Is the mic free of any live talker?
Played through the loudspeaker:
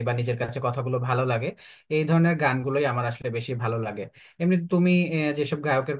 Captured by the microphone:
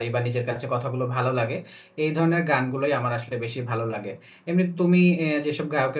Yes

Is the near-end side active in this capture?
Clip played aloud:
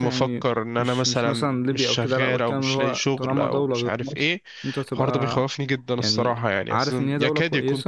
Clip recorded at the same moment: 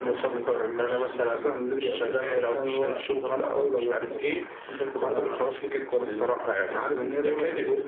No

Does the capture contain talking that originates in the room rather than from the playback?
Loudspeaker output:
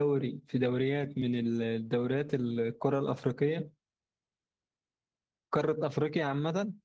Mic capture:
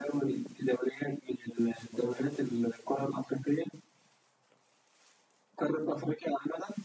Yes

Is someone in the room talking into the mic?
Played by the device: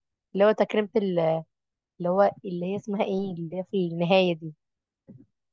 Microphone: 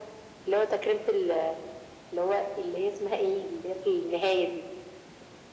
No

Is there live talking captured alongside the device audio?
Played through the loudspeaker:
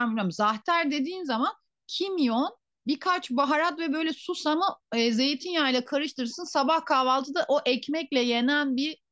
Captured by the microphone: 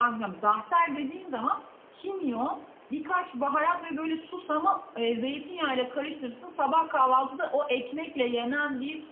No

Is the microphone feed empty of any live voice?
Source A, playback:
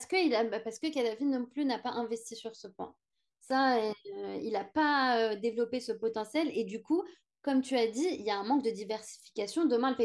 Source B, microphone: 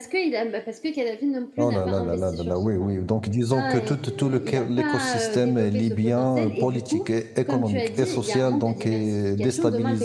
No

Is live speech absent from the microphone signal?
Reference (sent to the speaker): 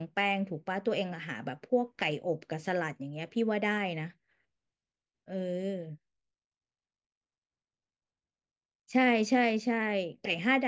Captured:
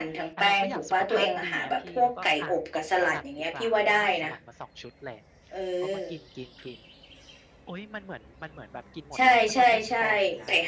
No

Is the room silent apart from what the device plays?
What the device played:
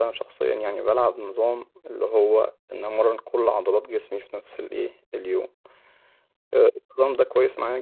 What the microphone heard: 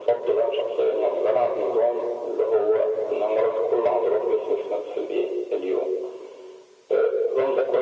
Yes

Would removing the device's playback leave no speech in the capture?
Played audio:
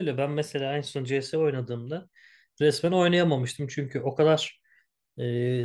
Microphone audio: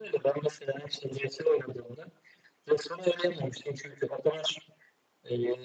Yes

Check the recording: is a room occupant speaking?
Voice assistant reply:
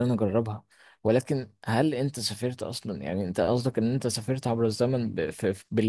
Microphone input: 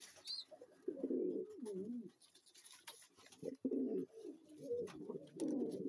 No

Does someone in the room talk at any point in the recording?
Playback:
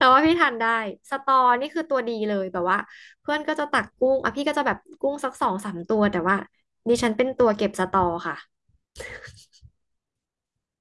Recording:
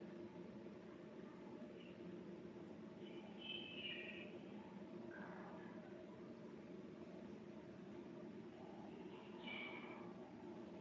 No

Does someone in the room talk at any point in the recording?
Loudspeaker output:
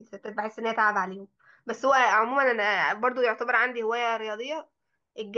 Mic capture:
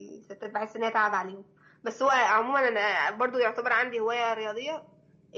No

